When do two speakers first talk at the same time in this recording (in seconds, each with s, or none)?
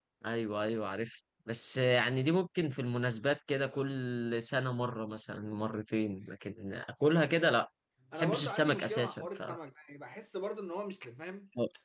8.2 s